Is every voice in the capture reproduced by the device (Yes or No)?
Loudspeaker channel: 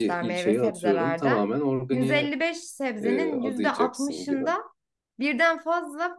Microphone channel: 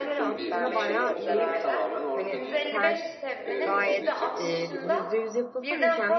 No